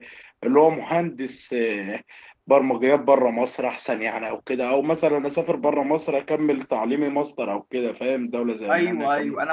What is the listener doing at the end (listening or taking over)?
taking over